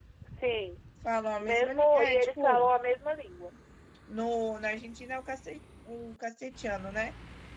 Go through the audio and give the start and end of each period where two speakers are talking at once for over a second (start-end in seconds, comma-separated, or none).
1.4-2.7